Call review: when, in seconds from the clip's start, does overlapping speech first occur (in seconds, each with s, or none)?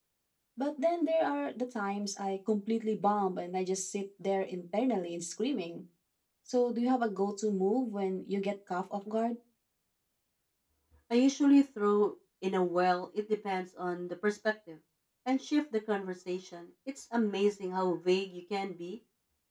none